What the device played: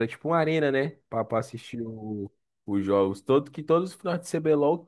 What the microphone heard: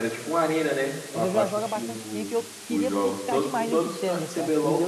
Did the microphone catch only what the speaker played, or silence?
No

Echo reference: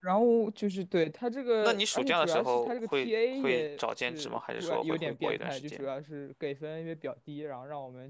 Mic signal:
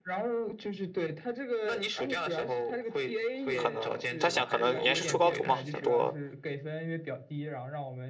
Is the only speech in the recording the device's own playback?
No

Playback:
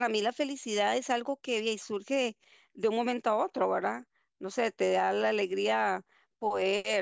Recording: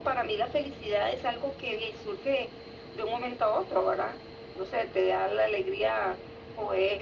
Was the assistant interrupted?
No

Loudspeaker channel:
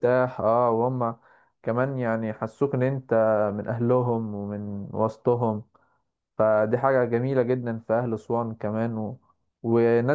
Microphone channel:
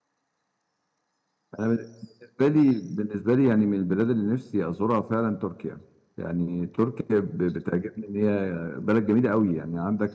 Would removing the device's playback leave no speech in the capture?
No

